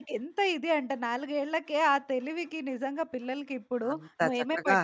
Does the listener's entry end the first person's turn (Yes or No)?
No